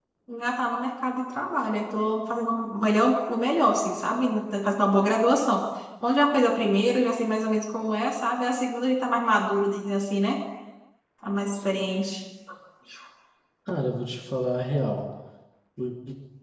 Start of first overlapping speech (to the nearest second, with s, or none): none